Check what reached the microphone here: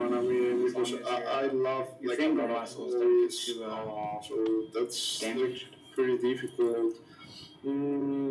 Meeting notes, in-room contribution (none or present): none